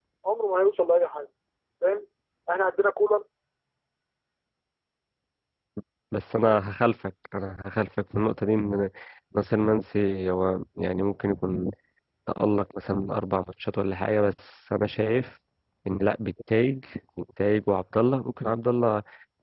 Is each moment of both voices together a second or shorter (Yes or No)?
Yes